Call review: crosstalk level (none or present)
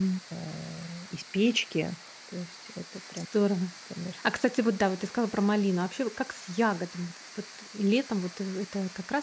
none